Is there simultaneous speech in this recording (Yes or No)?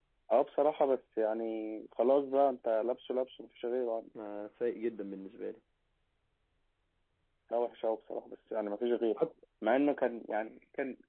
No